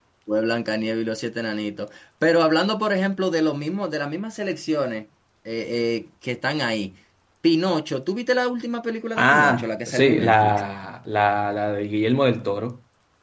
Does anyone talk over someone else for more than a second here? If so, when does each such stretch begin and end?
9.2-10.6

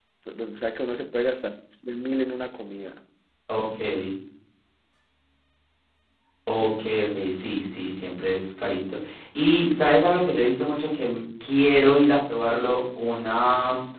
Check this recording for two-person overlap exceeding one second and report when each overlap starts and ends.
none

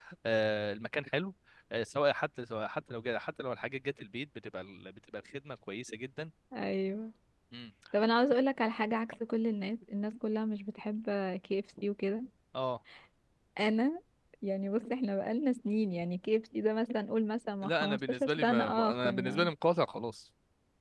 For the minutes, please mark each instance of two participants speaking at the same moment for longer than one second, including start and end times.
17.6-19.5

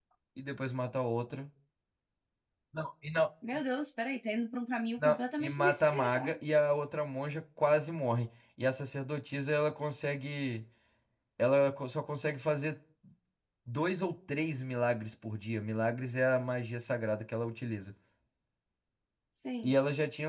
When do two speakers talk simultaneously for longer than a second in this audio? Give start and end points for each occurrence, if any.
5.0-6.4

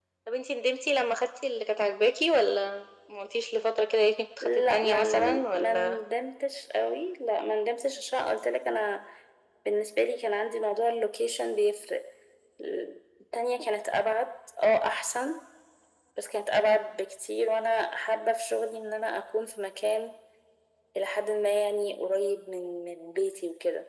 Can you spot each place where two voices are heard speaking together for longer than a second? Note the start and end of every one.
4.4-6.0

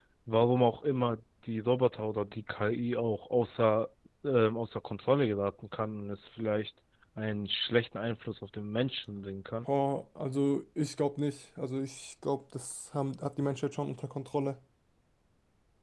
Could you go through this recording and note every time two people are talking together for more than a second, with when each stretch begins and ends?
none

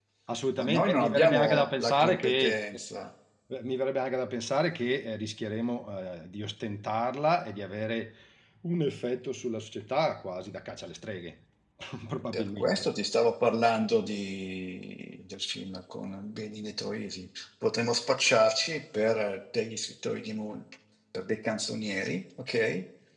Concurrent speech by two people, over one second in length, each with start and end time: 0.6-2.6

